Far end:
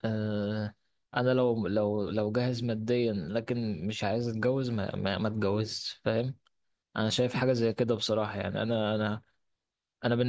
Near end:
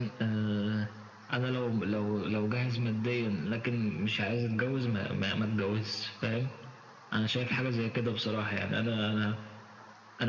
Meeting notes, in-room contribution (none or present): none